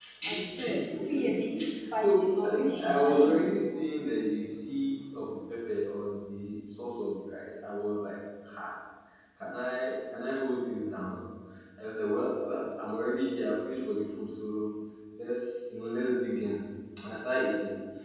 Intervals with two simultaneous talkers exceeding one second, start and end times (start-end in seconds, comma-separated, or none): 2.0-3.2